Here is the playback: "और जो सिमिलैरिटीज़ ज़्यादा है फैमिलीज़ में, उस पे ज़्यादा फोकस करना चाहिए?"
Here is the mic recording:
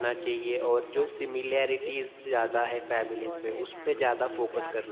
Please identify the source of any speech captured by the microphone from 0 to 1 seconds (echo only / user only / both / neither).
both